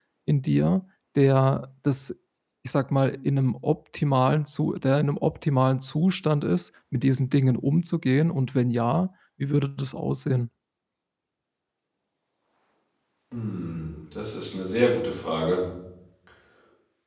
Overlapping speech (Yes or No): No